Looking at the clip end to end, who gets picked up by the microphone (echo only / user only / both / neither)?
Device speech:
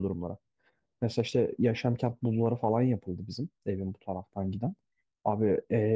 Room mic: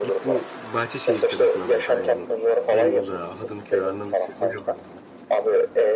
both